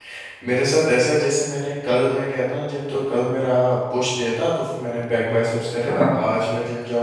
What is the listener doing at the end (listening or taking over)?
listening